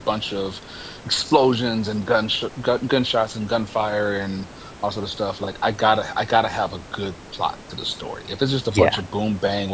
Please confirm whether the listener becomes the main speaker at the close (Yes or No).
No